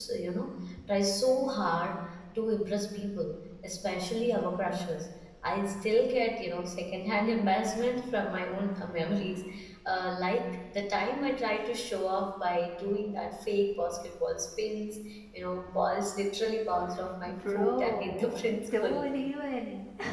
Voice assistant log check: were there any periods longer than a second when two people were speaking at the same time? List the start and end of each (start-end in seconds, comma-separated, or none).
17.3-19.1